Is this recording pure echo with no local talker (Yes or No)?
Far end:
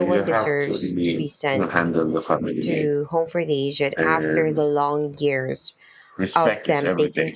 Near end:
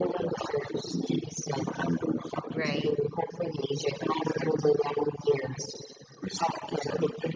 No